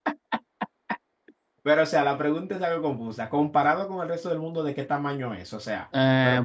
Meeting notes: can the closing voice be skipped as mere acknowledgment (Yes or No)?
No